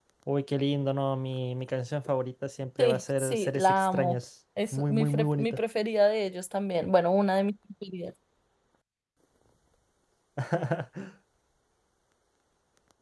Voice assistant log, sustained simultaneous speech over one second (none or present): present